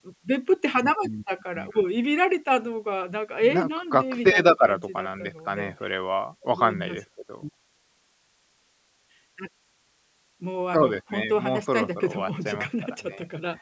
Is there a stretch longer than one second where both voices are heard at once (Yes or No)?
Yes